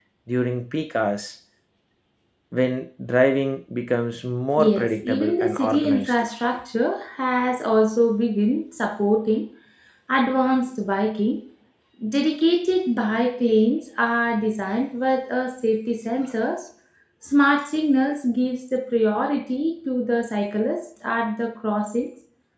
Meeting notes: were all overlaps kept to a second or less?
No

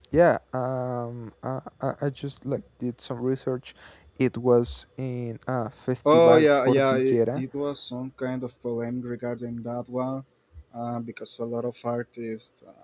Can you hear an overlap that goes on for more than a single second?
Yes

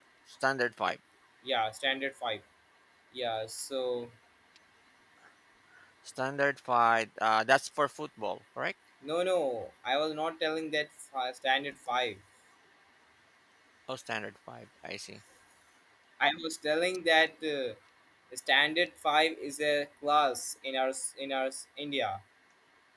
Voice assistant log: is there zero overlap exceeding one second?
Yes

